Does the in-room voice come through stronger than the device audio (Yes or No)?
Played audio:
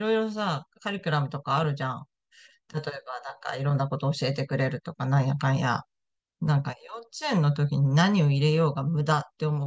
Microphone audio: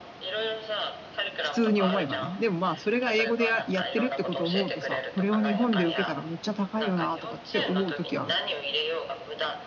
Yes